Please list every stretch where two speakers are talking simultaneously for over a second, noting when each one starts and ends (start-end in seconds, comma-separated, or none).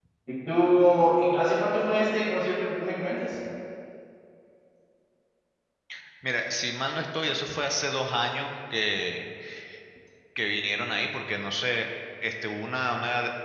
none